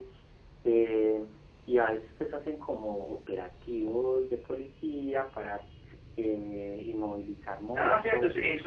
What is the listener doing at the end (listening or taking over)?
taking over